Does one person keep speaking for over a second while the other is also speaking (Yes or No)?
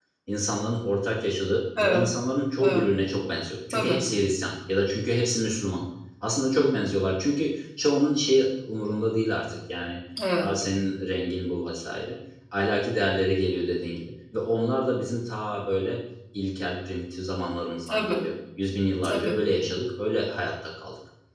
No